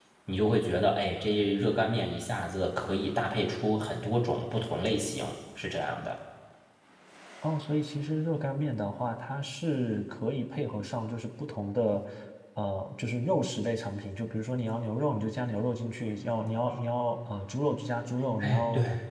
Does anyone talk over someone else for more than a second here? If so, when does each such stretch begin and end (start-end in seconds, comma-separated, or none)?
none